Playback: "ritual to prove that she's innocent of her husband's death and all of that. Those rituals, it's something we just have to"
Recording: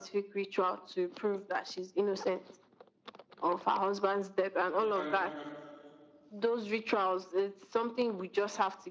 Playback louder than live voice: Yes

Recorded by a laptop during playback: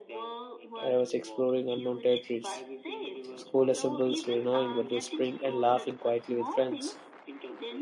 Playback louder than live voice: No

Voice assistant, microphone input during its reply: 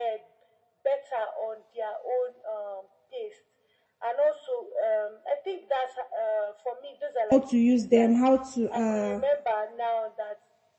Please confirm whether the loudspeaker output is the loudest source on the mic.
No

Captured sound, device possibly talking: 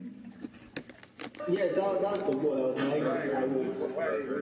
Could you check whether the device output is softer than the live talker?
No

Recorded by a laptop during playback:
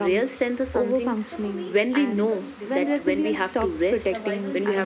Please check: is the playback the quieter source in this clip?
No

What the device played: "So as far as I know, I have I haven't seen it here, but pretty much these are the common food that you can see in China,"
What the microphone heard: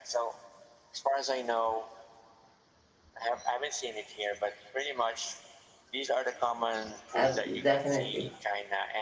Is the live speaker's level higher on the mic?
Yes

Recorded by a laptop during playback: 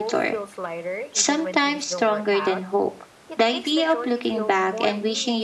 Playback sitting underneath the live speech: Yes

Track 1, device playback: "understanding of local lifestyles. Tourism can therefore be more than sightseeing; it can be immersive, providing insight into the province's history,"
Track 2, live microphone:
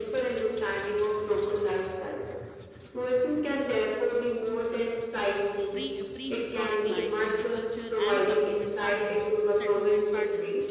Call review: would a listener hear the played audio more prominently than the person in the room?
Yes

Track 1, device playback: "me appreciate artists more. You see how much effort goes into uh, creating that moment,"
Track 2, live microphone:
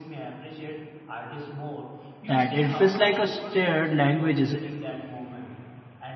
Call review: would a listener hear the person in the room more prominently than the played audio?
Yes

